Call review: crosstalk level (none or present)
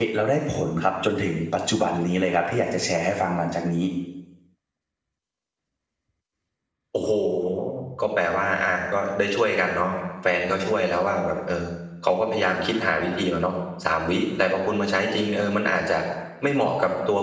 none